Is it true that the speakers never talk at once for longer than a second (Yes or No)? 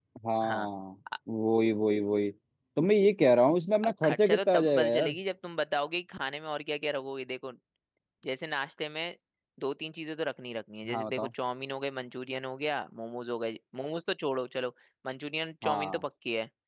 No